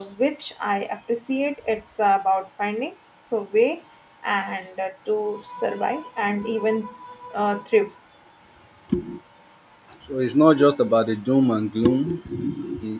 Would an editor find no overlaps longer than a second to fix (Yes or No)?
Yes